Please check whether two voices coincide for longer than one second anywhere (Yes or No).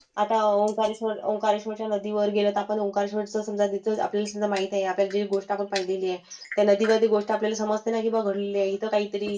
No